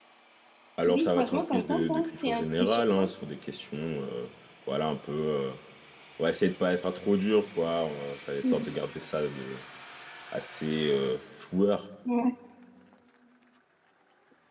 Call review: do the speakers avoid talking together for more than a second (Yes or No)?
No